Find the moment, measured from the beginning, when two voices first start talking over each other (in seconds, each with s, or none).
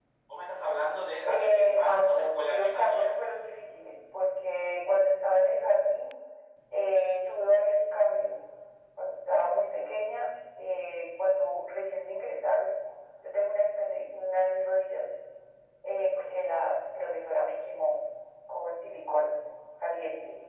1.2 s